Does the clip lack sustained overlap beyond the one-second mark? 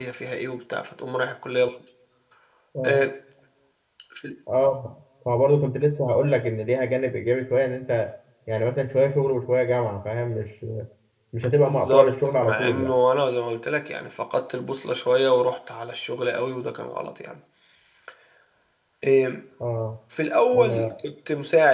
No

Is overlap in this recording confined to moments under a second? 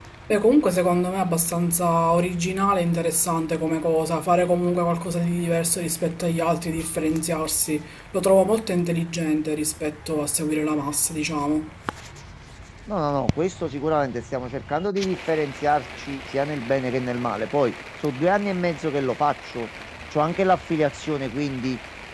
Yes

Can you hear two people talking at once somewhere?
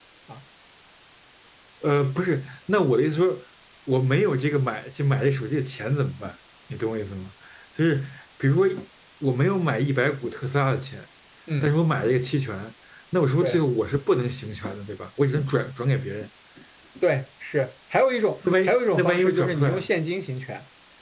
Yes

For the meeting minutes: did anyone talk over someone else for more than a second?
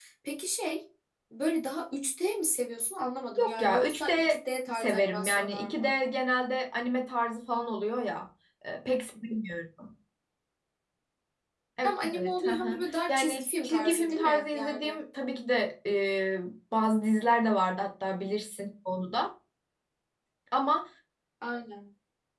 Yes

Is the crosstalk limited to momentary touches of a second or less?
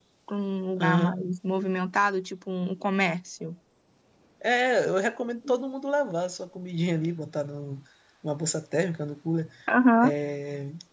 Yes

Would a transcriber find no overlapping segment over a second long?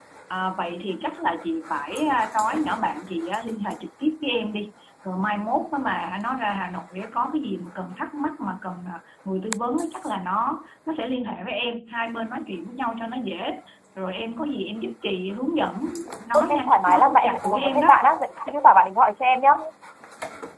No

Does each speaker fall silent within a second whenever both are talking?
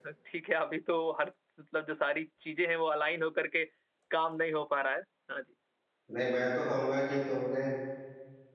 Yes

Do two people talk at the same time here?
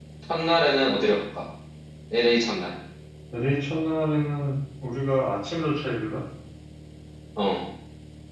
No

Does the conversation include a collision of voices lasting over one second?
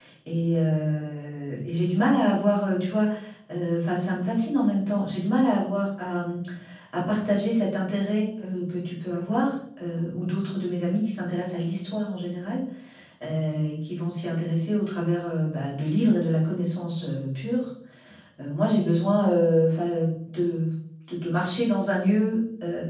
No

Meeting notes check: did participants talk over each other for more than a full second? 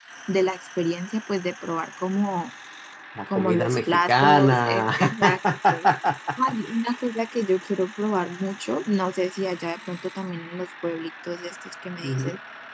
Yes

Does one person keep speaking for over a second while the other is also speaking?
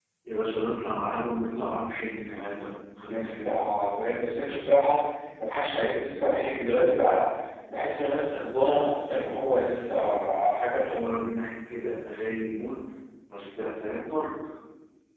No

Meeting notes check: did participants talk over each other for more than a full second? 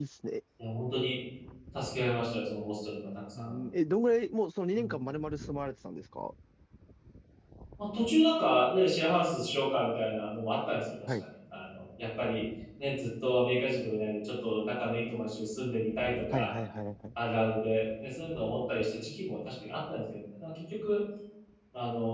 No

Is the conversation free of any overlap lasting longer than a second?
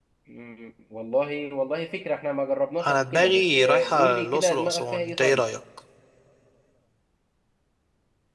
No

